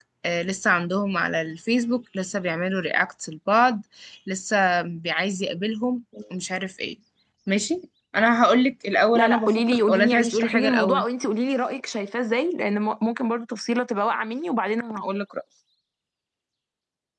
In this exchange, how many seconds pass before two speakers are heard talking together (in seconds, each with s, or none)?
9.1 s